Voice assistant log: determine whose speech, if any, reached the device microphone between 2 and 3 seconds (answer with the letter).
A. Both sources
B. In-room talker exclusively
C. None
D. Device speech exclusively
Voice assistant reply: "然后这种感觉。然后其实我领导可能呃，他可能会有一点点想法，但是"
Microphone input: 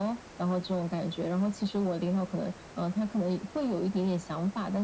D